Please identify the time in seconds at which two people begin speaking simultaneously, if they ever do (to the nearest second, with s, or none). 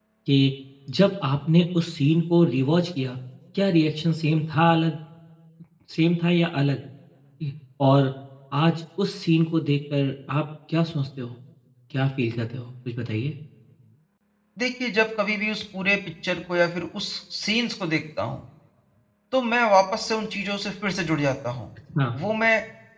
none